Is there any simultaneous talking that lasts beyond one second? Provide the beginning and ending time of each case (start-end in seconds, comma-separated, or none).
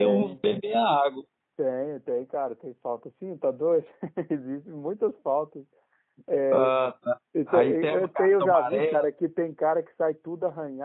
7.5-9.1